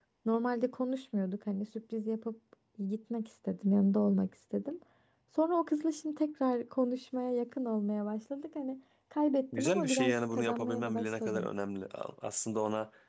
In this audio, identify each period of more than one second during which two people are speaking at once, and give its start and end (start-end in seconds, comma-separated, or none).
9.5-11.5